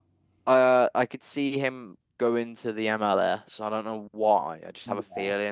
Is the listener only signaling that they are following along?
Yes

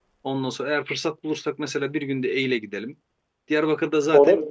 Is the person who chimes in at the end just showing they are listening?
Yes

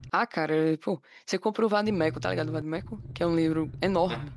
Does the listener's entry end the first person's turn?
Yes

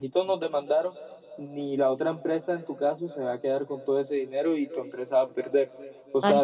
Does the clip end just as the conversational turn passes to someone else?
Yes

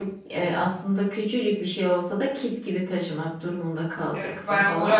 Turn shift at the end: Yes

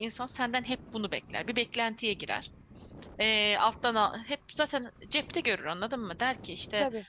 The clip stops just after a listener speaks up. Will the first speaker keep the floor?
Yes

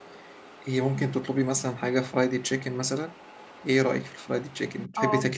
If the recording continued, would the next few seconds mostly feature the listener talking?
Yes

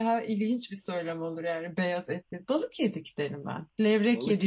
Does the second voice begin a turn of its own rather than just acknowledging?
No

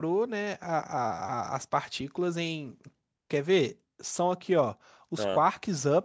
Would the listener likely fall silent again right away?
Yes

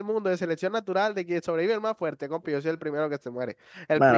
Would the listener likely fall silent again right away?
No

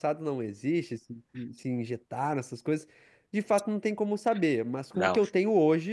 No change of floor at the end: Yes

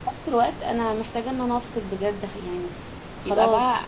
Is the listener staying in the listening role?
No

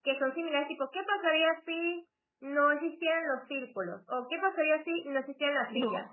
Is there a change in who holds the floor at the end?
No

